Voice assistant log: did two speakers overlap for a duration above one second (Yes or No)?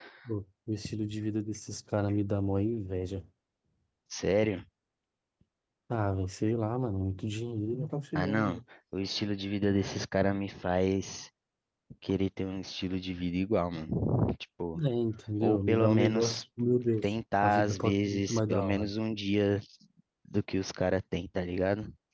Yes